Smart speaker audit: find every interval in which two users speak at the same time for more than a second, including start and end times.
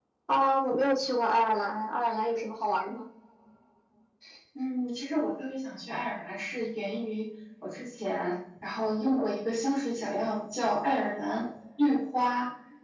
none

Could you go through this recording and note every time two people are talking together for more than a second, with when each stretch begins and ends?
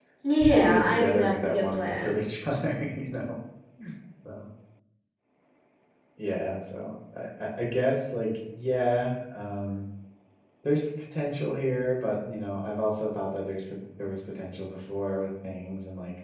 0.6-2.2

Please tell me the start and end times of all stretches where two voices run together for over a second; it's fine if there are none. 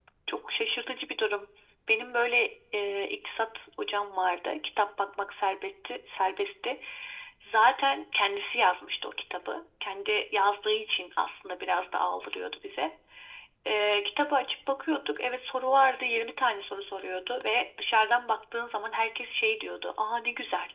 none

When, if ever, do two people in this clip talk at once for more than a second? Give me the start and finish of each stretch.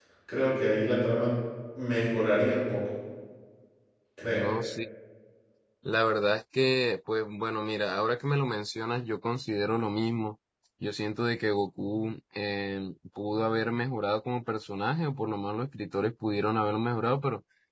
none

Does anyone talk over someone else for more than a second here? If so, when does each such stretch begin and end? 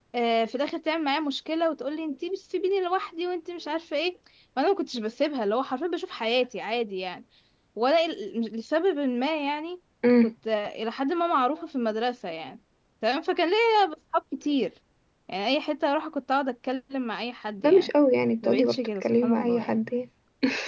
18.4-19.8

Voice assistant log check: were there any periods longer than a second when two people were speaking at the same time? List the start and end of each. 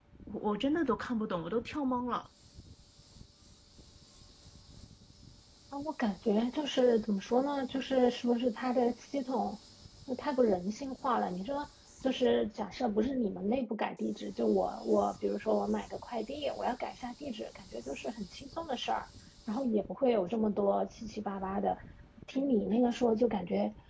none

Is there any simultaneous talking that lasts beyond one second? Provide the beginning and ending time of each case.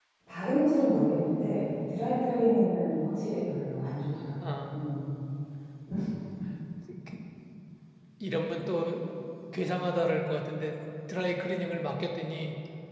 none

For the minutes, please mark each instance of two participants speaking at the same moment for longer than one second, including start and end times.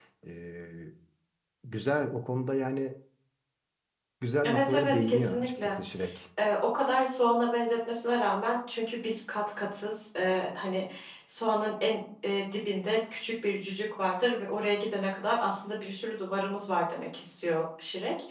4.4-5.7

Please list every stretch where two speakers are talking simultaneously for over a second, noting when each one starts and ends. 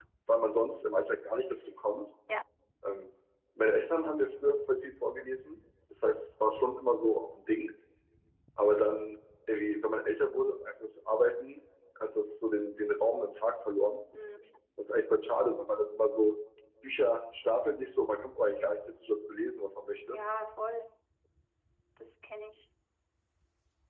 none

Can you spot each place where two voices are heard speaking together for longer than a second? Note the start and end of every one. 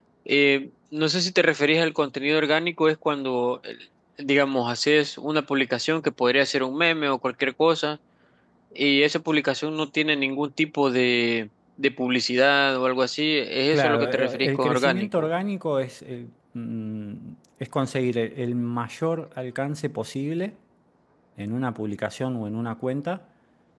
13.7-15.3

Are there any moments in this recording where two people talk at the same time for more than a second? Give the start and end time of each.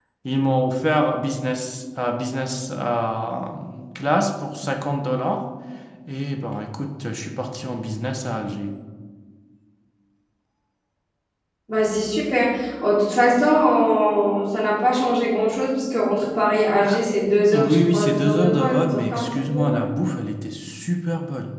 17.5-19.8

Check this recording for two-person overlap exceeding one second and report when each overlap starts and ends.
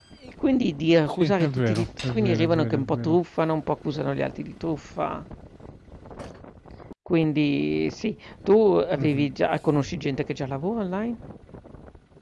1.1-3.2

